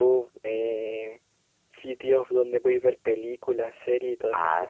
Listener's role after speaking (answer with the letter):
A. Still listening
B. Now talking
B